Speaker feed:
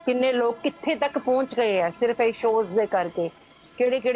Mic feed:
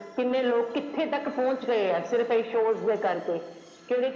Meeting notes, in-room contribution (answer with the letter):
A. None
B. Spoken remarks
A